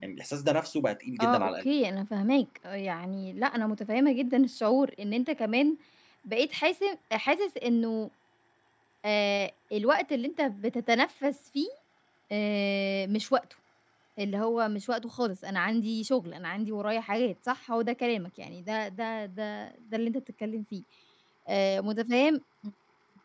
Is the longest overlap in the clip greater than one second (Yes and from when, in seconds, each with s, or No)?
No